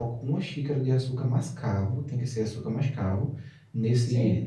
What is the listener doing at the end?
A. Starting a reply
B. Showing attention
B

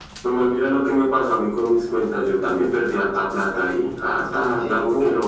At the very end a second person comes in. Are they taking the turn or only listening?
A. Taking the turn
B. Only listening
B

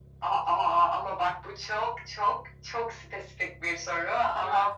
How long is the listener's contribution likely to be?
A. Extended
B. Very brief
B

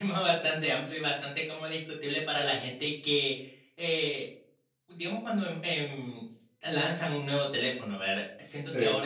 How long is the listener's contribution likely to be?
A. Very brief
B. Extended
A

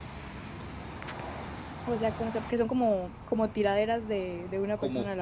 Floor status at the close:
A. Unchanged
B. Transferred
B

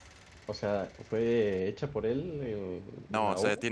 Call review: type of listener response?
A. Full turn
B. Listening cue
A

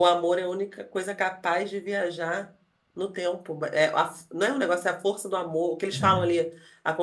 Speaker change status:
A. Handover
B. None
B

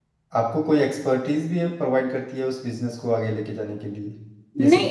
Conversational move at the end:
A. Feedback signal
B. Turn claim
B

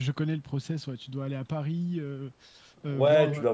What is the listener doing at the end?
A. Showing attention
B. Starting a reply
B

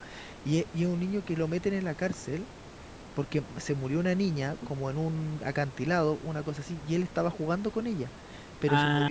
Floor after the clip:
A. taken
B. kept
B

